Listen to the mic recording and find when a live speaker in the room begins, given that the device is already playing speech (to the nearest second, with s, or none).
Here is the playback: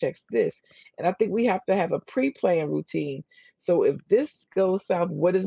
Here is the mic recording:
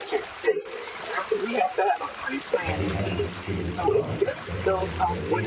3 s